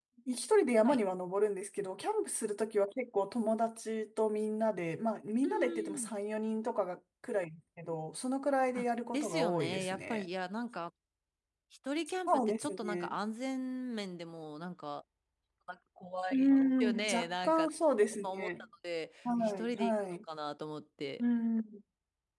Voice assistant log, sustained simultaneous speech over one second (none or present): present